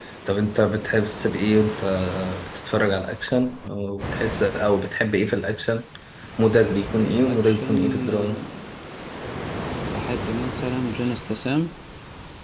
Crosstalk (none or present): present